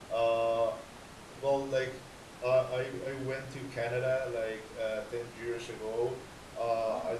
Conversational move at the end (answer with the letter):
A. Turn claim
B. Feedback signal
B